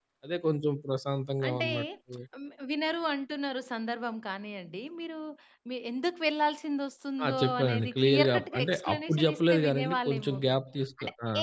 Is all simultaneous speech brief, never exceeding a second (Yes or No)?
No